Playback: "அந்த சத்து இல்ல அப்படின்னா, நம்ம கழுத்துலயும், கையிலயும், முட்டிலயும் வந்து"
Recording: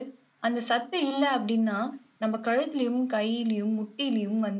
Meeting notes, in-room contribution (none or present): none